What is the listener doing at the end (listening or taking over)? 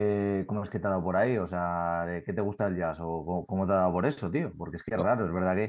listening